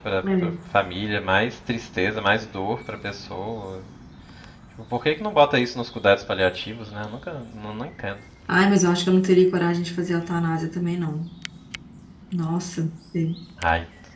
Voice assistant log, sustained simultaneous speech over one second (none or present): none